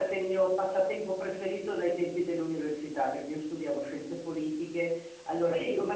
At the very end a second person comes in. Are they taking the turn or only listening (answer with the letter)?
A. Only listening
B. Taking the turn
A